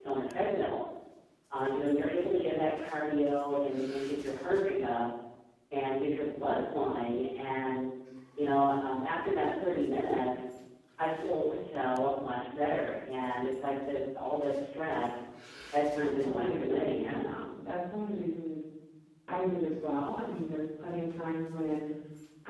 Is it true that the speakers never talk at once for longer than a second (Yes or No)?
No